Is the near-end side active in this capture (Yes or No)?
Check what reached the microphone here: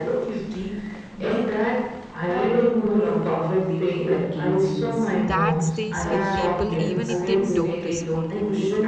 Yes